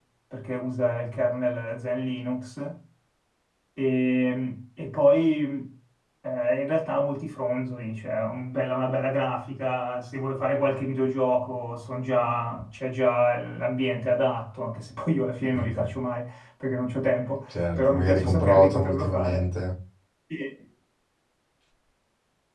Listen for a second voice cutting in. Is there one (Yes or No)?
Yes